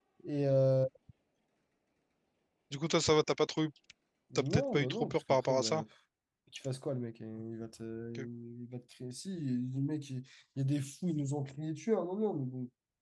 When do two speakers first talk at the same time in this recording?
4.3 s

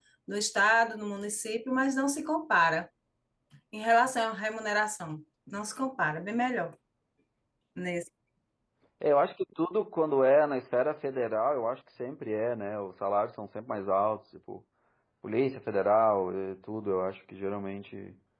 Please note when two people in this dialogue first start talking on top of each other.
none

